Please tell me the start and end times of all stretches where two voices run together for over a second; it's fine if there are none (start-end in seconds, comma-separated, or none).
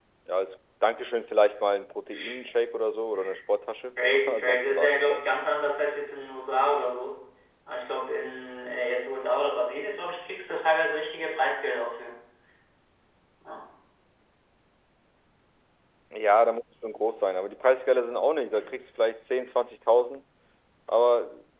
4.0-5.2